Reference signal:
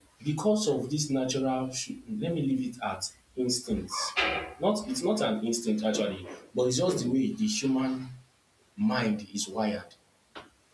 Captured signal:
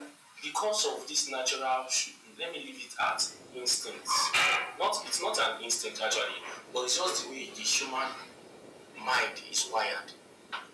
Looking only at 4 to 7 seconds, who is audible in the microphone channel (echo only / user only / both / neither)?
echo only